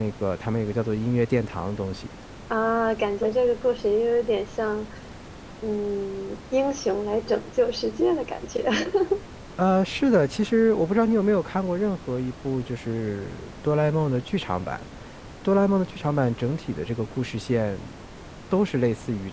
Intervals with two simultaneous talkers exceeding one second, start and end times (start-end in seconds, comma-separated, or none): none